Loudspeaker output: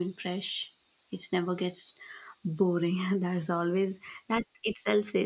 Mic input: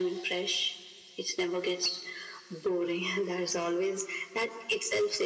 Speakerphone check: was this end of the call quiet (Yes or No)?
Yes